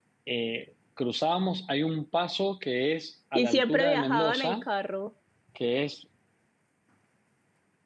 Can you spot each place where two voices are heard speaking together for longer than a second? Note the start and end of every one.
3.4-4.6

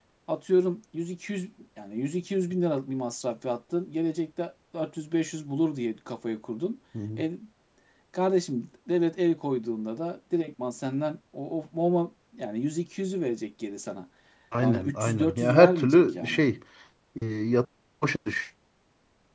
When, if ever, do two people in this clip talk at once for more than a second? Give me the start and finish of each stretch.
14.6-16.4

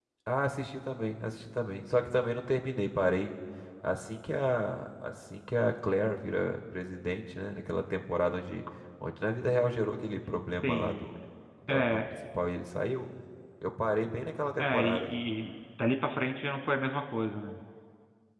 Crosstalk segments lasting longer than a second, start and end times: none

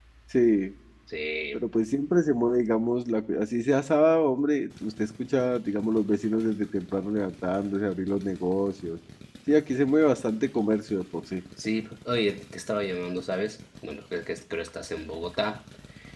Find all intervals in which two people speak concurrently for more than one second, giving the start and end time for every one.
none

